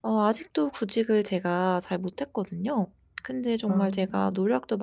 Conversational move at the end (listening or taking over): listening